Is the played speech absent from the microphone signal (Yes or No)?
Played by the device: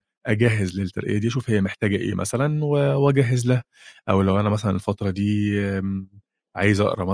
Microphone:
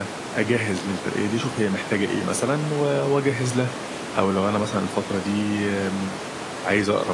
No